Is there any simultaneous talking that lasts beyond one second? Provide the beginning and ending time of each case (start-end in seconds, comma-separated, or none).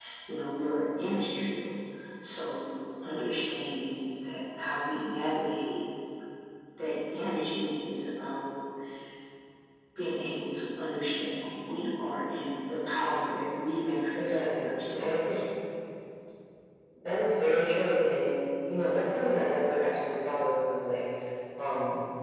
14.2-15.4